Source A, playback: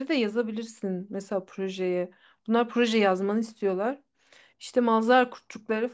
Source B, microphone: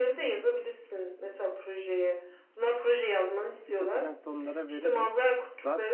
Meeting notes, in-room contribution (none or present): present